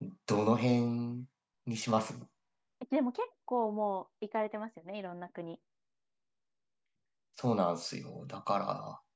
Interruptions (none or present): none